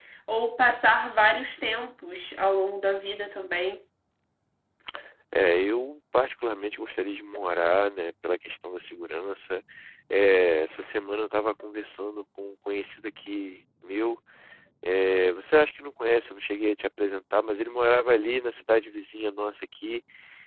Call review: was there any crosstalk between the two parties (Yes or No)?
No